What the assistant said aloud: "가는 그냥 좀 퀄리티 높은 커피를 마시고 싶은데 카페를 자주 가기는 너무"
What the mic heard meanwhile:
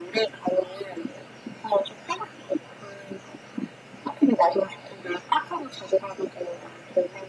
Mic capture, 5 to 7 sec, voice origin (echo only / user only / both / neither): echo only